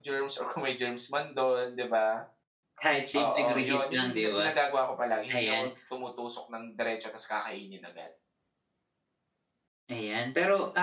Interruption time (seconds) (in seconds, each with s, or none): 3.2 s